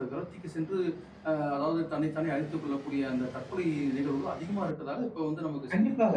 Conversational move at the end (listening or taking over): taking over